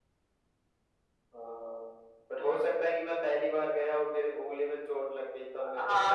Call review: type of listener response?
taking over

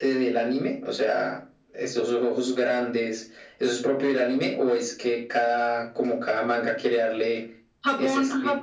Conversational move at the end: taking over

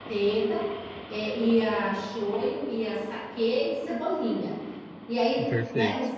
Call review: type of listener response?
listening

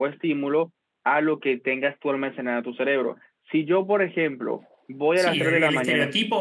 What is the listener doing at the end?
taking over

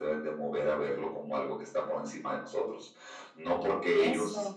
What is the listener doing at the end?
listening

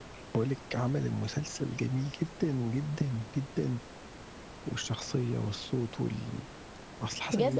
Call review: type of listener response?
taking over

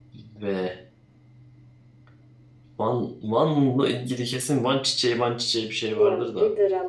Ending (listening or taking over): taking over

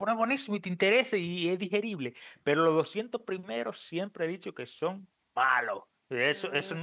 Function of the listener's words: listening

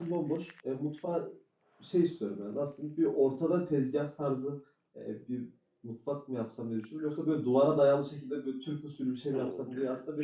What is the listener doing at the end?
taking over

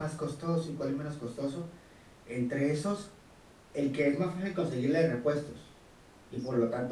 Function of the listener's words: listening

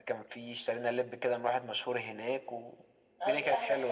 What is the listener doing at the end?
taking over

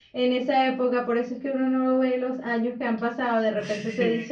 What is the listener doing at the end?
listening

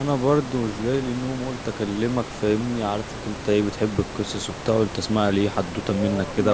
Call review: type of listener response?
taking over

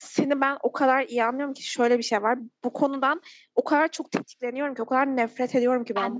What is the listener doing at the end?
listening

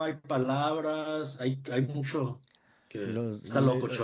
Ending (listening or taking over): taking over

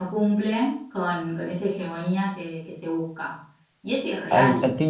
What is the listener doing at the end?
taking over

